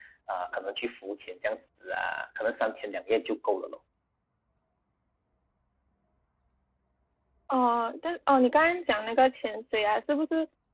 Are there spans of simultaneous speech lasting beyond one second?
No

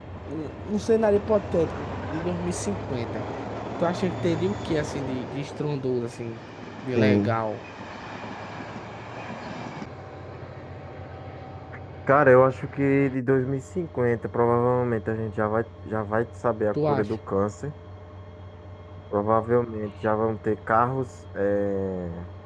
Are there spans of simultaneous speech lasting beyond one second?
No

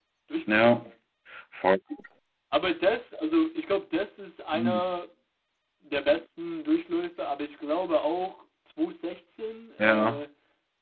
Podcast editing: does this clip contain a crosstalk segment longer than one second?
No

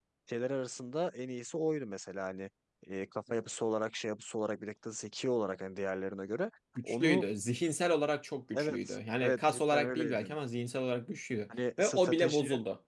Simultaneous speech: Yes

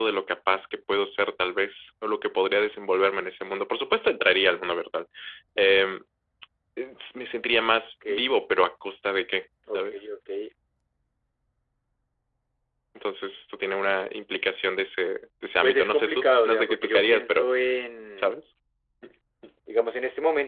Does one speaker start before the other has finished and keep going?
Yes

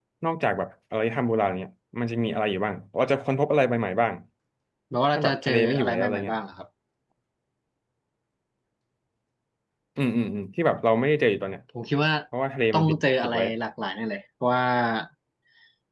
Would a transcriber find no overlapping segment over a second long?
No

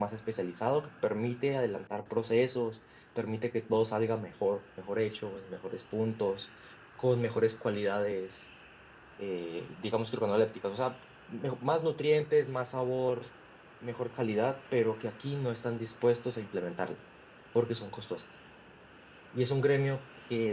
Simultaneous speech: No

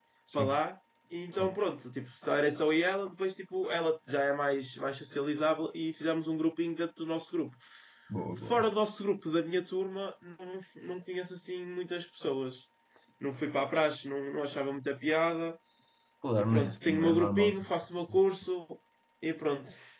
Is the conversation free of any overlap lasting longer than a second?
No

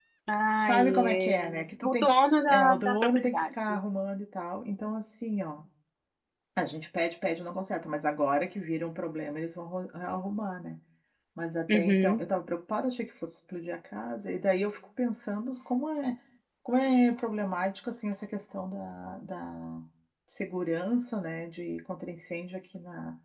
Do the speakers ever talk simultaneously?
Yes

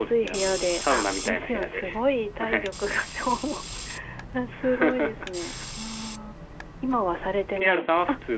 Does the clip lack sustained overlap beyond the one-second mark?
No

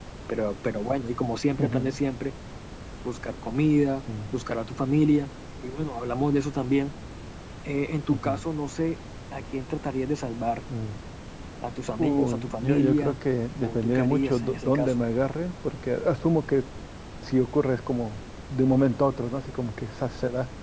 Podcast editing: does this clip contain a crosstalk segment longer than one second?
Yes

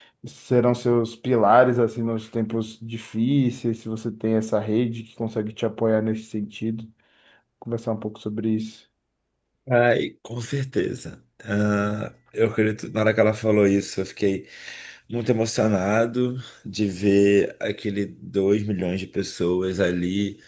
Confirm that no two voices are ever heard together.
Yes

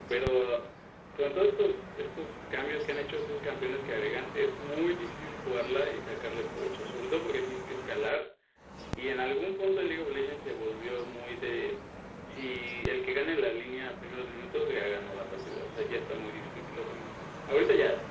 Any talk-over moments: No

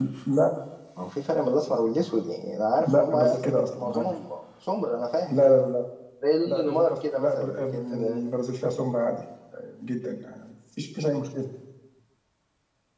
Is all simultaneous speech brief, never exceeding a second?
No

